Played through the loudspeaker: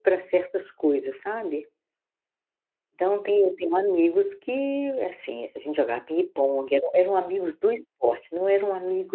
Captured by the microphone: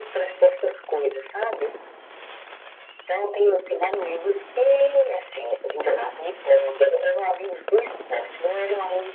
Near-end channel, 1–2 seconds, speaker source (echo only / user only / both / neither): echo only